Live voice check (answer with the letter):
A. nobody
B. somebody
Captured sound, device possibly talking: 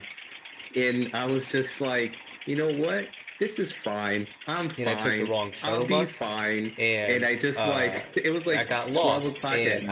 B